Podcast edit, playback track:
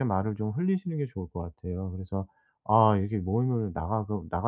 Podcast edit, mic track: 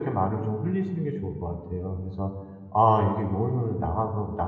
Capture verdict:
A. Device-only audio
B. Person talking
A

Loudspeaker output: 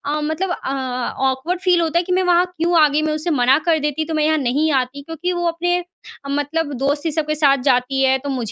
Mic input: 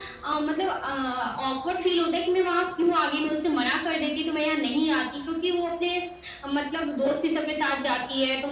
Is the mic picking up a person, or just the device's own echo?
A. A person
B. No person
B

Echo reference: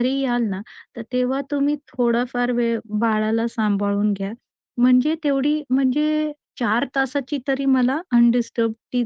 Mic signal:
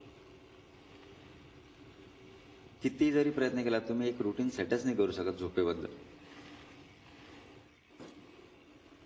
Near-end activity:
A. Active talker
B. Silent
A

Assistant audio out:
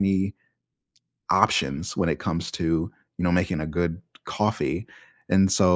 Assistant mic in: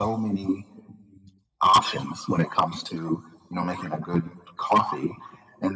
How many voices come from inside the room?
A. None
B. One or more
A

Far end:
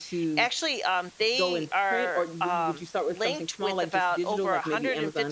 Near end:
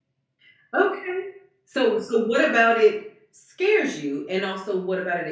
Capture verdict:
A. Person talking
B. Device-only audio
A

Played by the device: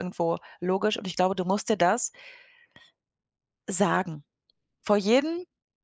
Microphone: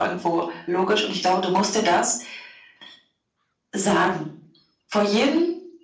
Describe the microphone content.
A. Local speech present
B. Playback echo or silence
B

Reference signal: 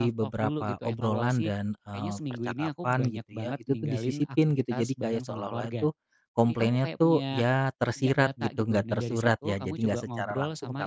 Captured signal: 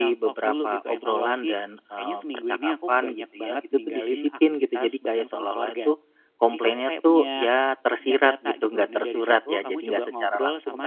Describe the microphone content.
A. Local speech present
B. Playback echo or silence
B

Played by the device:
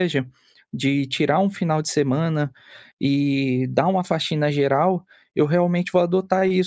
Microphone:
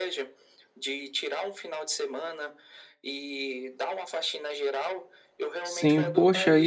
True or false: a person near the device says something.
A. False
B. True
B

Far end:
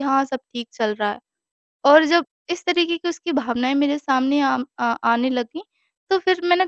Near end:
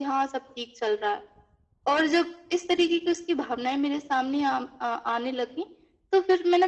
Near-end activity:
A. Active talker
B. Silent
B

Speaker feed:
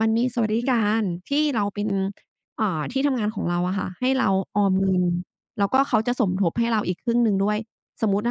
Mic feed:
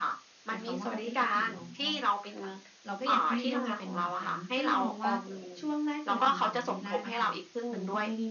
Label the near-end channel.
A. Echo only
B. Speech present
B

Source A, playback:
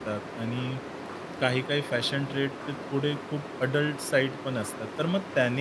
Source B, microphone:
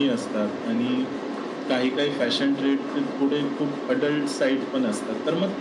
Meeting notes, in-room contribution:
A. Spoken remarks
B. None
B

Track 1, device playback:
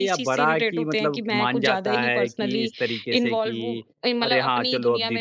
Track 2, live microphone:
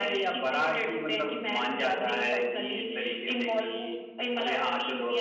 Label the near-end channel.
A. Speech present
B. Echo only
B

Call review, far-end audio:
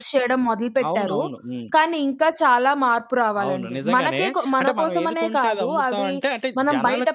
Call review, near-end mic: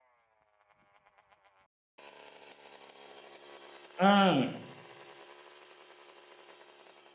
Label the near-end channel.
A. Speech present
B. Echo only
A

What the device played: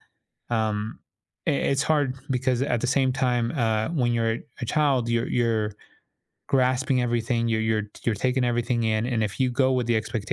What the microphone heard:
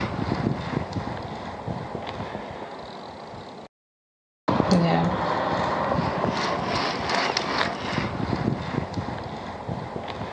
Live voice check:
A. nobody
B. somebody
B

